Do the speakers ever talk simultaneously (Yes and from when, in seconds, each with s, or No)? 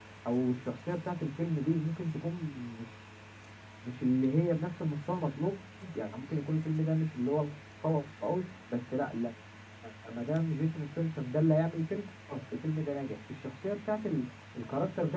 No